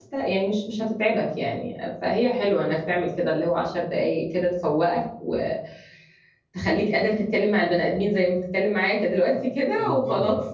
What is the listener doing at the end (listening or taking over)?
taking over